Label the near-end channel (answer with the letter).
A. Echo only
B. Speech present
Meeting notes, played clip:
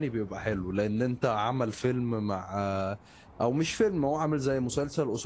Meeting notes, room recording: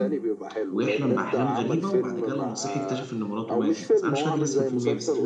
B